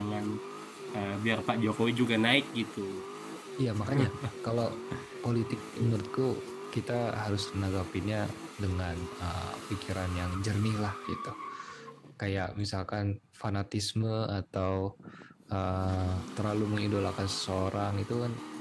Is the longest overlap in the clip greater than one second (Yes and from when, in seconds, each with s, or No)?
No